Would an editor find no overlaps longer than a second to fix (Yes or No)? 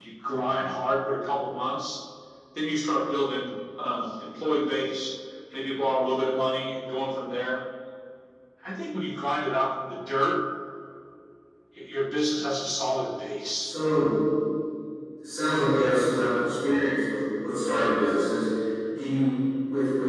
Yes